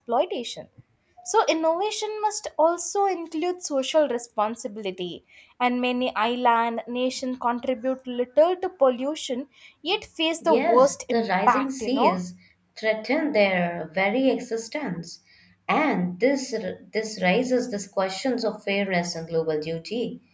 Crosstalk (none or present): present